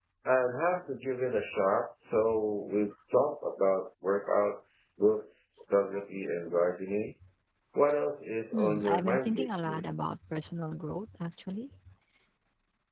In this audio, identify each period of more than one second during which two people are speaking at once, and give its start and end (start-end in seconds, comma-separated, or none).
8.5-9.8